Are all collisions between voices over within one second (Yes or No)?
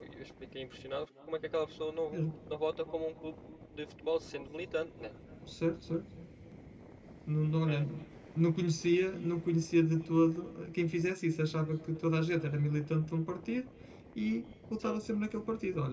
Yes